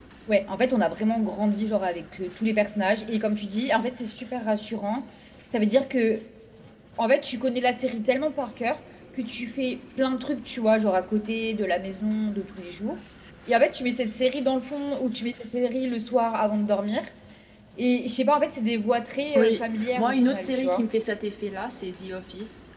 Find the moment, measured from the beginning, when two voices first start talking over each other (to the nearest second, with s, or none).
19 s